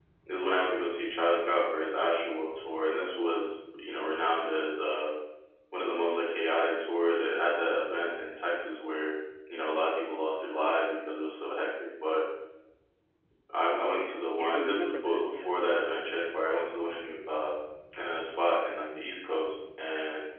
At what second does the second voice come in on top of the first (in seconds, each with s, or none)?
13.9 s